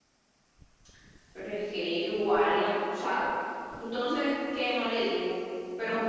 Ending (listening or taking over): listening